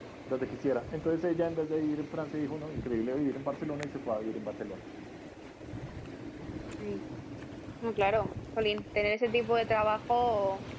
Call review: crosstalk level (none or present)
none